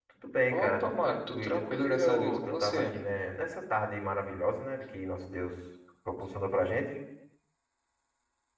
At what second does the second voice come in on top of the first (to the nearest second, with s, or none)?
1 s